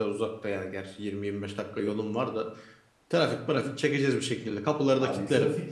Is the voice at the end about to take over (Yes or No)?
Yes